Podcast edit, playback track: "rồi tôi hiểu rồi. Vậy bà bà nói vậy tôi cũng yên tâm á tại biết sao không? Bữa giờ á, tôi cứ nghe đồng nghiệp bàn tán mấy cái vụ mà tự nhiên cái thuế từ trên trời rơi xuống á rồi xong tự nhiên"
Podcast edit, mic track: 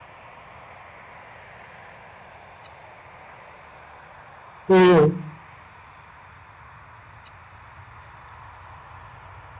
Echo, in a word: none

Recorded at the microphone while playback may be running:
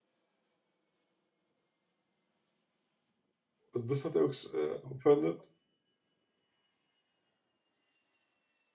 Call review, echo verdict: none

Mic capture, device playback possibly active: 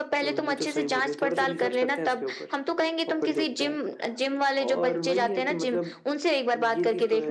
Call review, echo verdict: present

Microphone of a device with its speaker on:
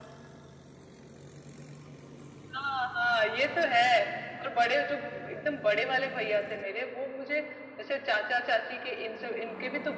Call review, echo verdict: present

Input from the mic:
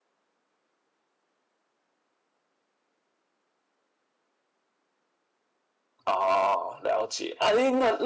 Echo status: none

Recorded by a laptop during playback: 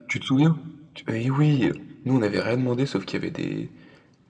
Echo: present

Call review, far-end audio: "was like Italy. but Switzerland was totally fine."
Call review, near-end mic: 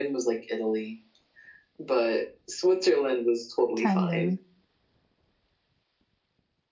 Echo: present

